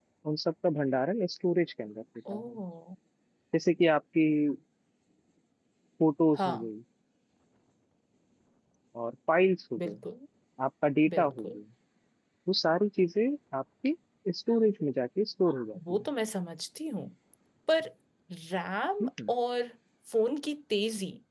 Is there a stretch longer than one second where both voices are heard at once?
No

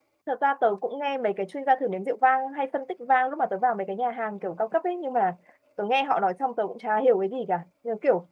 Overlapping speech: No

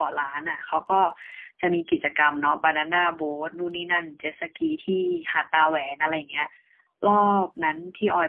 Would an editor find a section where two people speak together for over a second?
No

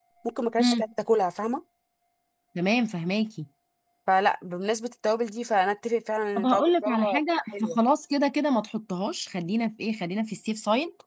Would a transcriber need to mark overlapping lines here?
Yes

